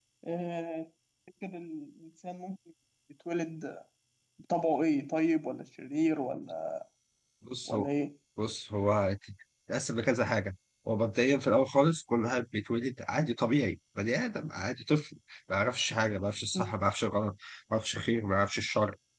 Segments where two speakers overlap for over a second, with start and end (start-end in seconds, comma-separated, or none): none